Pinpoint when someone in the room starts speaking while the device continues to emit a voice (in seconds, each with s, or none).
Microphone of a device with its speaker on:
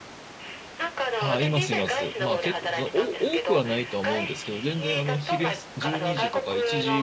1.2 s